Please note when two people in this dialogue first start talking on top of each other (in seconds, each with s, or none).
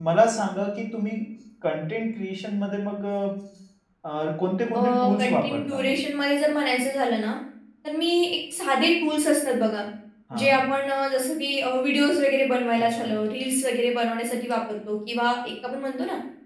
4.8 s